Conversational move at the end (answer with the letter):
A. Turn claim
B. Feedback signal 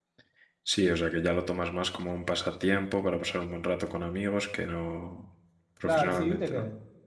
A